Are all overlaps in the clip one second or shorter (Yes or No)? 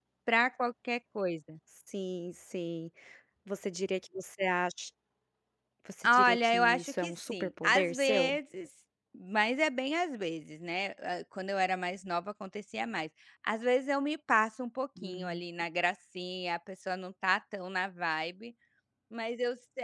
No